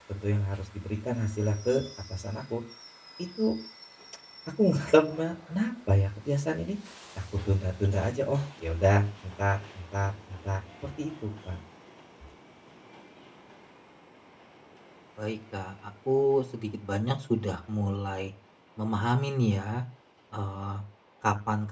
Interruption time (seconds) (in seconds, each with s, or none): none